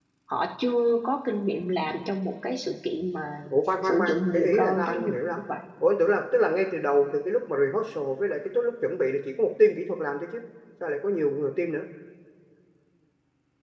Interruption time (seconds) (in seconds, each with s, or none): 3.8 s